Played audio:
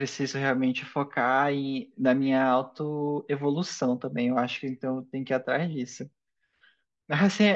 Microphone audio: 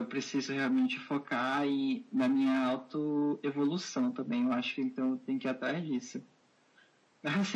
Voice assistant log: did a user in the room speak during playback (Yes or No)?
No